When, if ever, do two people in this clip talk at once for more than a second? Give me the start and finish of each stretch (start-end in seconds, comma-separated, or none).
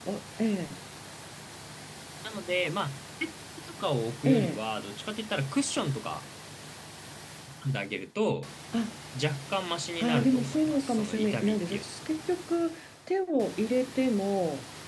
10.0-11.8